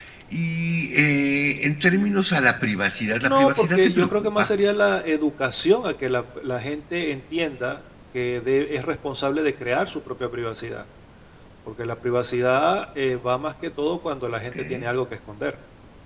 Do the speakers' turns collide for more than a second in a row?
Yes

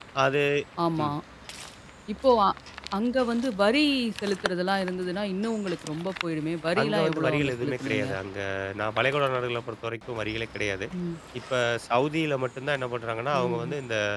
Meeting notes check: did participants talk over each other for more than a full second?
Yes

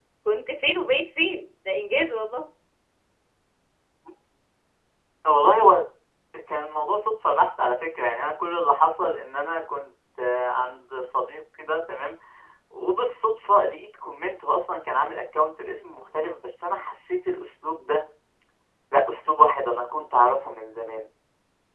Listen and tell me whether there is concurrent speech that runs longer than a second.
No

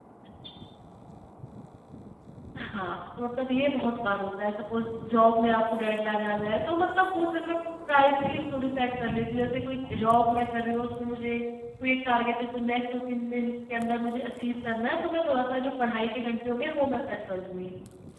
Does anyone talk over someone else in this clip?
No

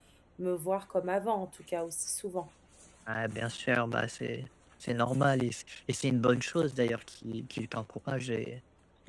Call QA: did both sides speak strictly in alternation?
Yes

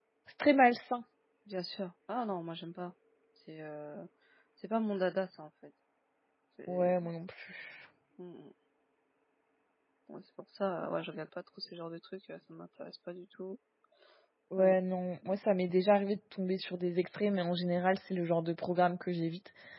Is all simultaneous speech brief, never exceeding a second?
Yes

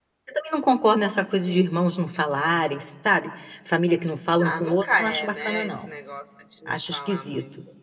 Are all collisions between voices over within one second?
No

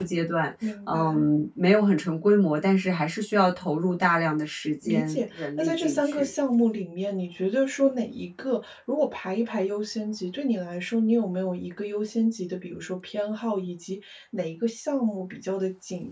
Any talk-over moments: Yes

